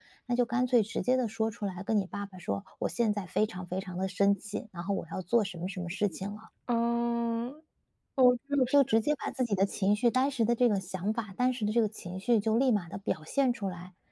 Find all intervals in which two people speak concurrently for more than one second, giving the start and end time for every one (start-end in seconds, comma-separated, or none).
none